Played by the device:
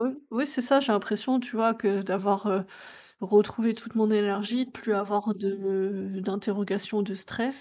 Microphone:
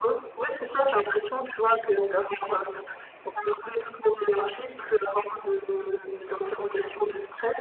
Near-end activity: none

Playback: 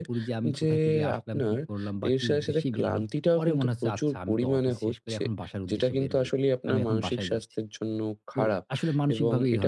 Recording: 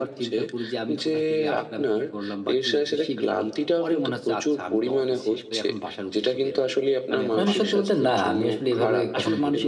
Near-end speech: present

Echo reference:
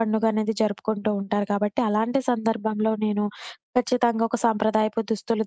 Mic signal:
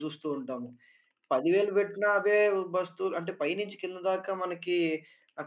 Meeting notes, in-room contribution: present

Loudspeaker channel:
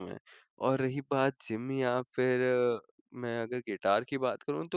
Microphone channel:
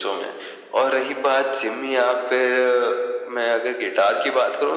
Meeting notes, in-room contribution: none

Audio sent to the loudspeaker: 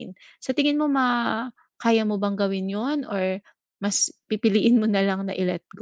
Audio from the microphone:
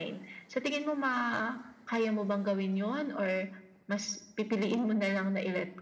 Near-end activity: none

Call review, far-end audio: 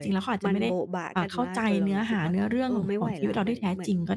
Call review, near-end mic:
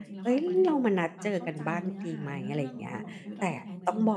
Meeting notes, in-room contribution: present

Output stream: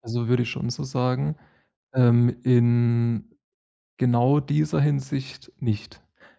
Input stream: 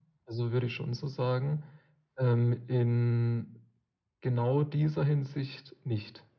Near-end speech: none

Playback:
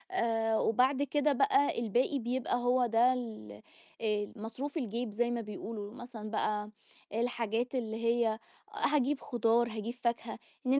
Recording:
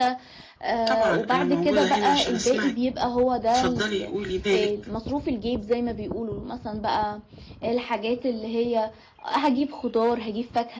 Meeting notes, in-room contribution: present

